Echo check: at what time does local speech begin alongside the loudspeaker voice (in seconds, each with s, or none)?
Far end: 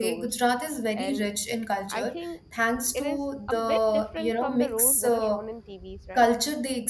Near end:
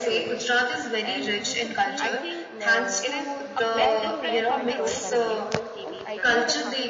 1.4 s